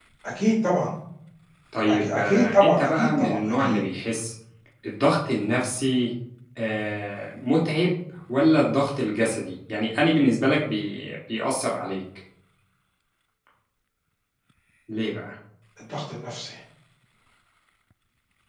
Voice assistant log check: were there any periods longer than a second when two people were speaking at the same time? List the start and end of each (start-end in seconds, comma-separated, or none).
1.9-3.8